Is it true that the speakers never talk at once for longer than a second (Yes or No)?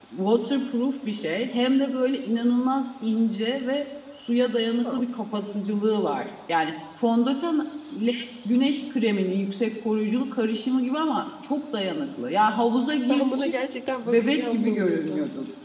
No